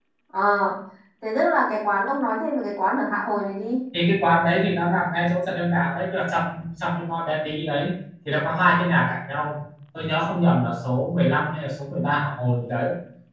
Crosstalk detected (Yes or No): No